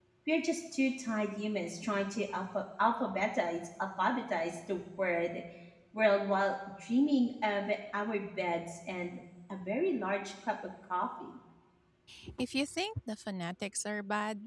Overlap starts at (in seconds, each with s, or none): none